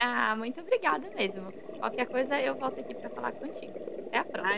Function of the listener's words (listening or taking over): taking over